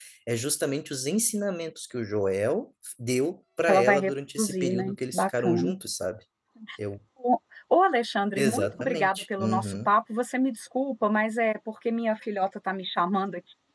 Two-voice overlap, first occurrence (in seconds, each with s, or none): 3.6 s